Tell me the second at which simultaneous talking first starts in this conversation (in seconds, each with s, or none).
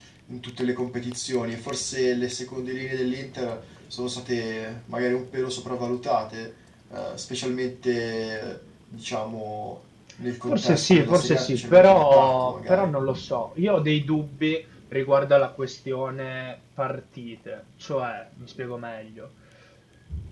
10.5 s